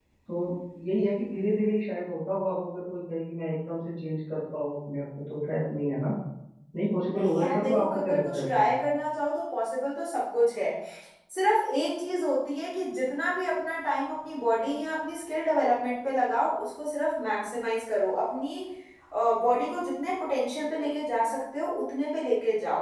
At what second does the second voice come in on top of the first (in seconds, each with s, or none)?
7.1 s